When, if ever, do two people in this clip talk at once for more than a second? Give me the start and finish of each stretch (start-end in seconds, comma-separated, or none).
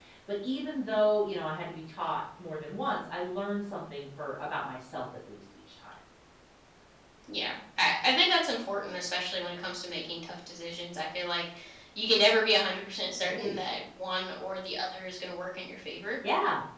none